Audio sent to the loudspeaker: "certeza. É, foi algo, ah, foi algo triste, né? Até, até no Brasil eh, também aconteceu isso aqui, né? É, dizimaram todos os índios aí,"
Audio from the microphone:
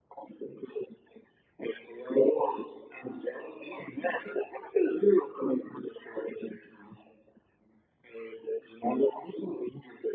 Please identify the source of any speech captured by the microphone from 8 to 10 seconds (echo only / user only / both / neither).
echo only